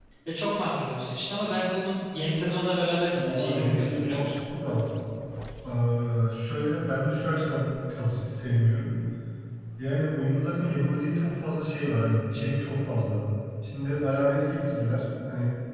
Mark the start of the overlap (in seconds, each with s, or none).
3.1 s